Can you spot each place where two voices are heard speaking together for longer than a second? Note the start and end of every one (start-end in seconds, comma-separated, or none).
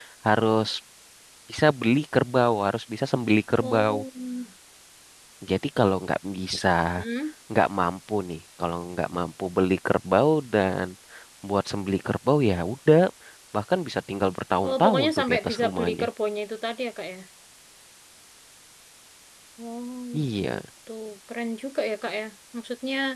14.7-16.0